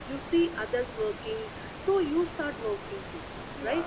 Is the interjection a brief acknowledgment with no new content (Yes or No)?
No